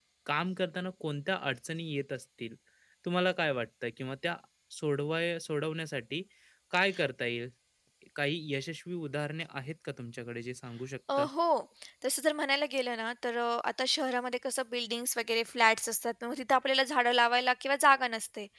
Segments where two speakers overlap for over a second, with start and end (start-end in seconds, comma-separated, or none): none